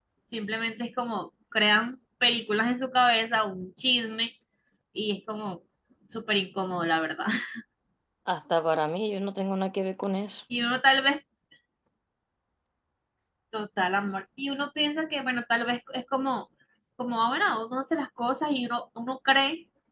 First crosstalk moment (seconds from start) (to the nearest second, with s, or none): none